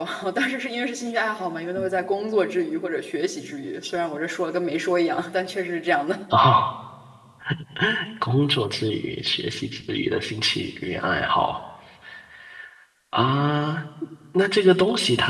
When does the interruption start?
none

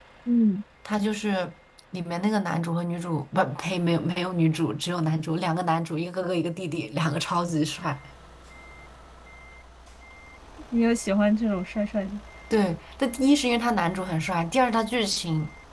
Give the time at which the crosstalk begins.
none

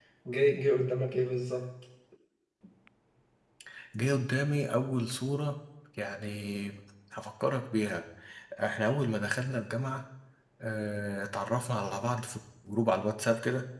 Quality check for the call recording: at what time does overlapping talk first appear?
none

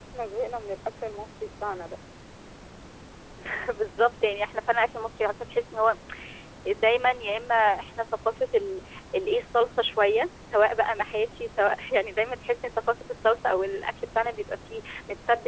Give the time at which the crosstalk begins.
none

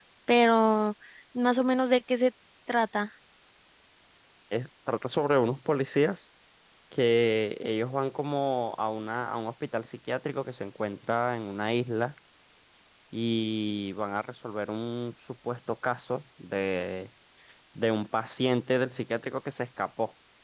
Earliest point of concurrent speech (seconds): none

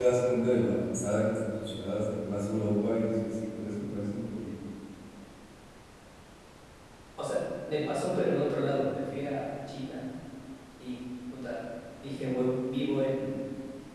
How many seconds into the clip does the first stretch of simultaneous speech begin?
none

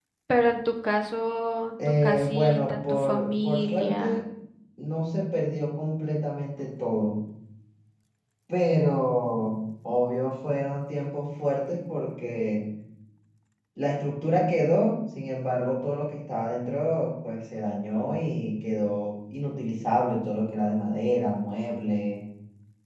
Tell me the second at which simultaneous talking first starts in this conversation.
1.8 s

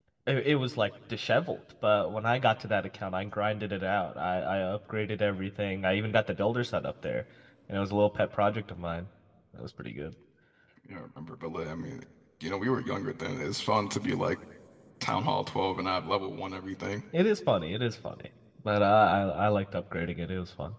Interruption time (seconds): none

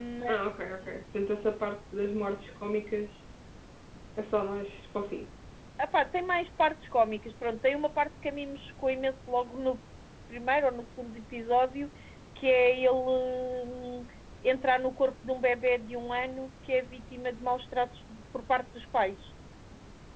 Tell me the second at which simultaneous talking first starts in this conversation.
none

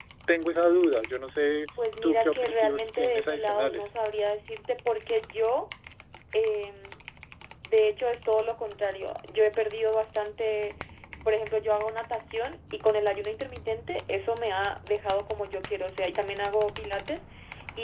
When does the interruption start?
2.0 s

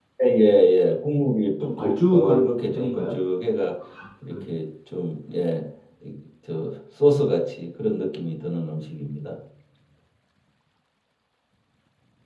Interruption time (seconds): 1.6 s

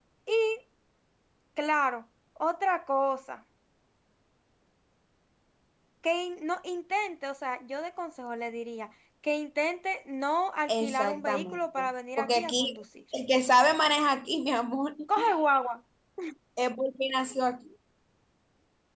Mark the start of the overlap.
10.7 s

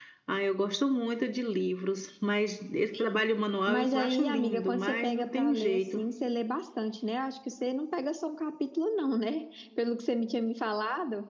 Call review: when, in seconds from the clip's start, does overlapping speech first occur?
3.7 s

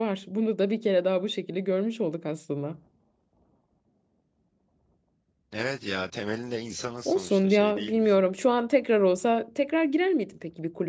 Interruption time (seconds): 7.0 s

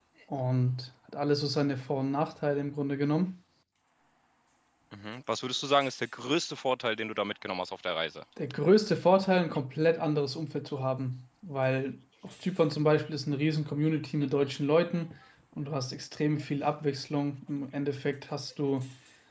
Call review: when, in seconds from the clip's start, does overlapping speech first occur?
none

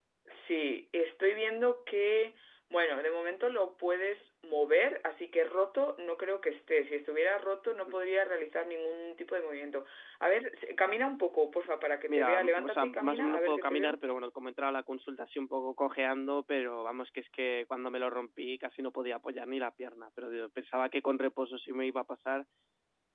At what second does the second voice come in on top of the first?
12.1 s

